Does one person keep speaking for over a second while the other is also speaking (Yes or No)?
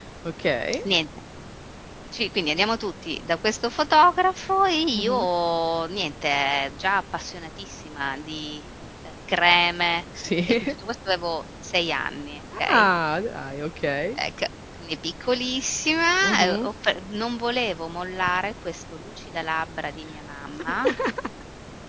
No